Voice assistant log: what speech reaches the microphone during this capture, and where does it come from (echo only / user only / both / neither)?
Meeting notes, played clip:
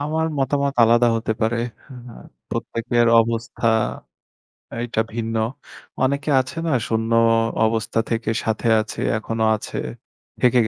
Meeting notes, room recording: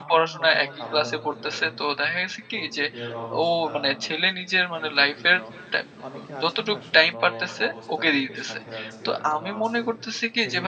both